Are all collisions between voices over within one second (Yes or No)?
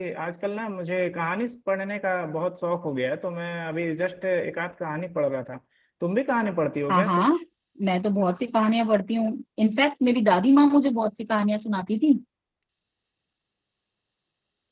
Yes